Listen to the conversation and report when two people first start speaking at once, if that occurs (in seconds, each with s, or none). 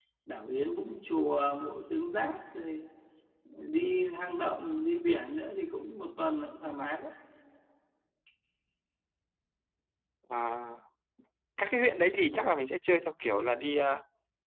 none